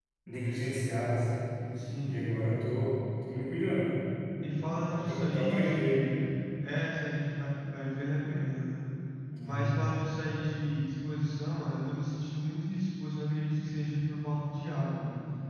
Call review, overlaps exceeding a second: present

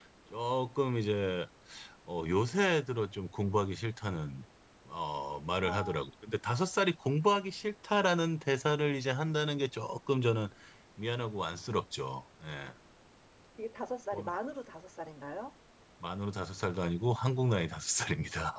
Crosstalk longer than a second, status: none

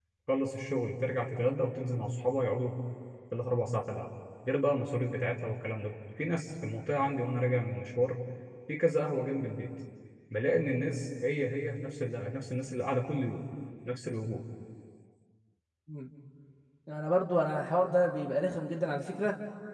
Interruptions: none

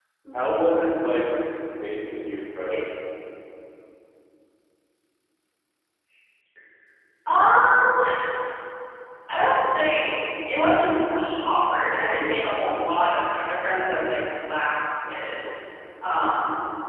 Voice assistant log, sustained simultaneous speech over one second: none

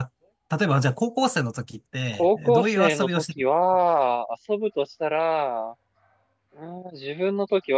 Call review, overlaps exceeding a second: present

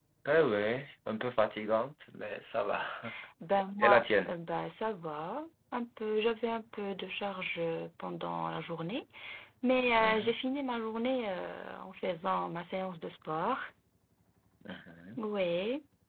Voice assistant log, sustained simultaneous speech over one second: none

